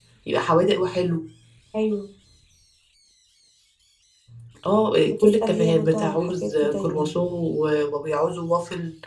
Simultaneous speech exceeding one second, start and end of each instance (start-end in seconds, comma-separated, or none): 5.0-7.1